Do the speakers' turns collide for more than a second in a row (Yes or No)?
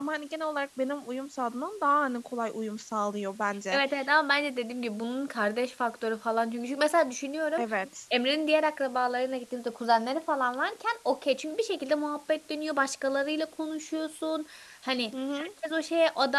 No